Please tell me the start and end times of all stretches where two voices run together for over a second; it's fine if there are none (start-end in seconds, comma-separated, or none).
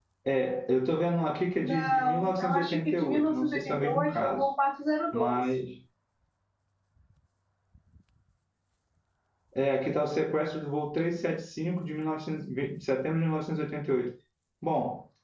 1.6-4.5